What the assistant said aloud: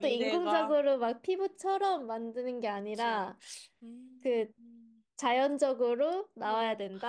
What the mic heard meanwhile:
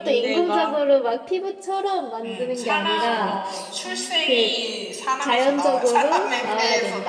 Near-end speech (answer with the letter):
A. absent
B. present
B